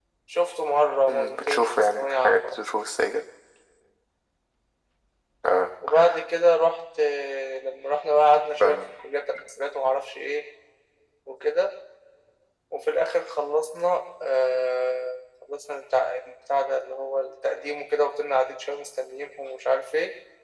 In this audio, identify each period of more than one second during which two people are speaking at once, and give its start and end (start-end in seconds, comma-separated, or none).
1.1-2.6